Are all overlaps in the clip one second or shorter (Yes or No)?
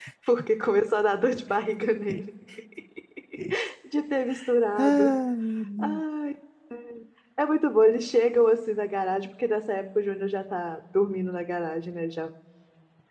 Yes